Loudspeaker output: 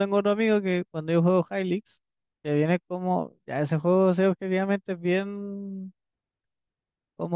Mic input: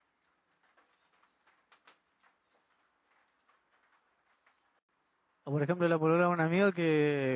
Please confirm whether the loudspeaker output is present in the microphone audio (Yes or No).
No